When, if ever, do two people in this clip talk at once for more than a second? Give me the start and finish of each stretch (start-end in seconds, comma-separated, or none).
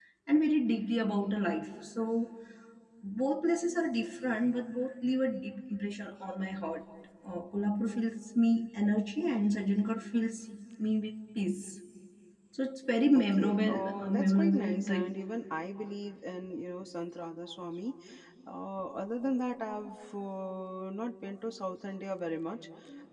13.2-15.2